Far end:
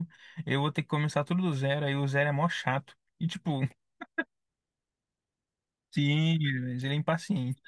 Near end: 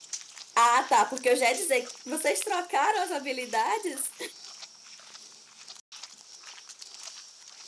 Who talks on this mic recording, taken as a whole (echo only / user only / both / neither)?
user only